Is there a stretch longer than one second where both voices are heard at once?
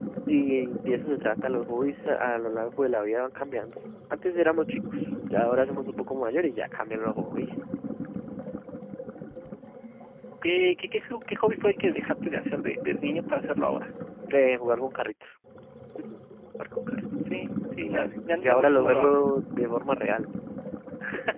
Yes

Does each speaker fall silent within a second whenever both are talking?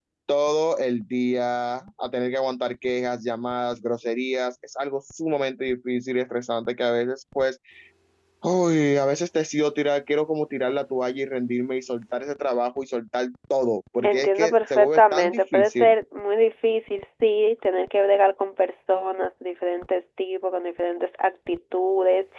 No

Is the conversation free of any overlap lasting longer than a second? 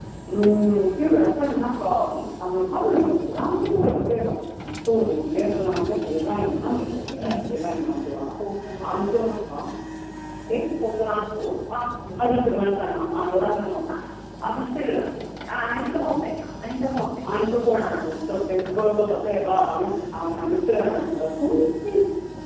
Yes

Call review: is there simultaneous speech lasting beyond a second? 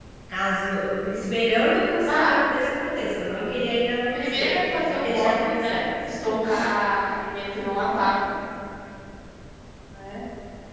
Yes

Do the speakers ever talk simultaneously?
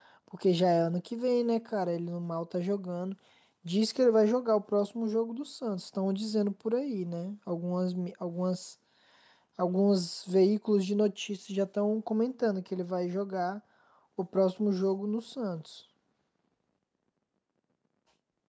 No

